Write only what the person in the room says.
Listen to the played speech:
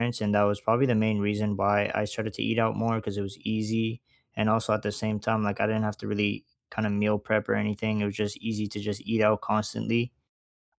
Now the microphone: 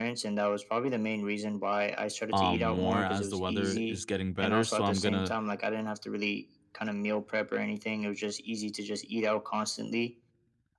um, more as the weather is getting better. So I'm gonna

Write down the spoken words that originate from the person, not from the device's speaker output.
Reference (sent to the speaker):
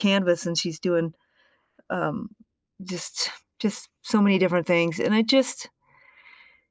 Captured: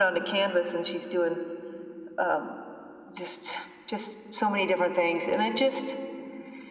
none

